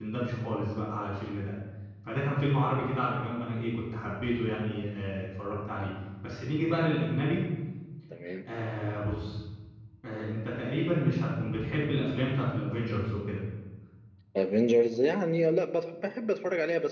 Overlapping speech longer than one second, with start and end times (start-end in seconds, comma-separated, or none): none